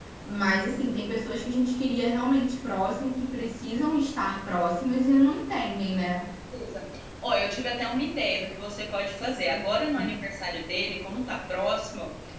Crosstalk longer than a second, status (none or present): none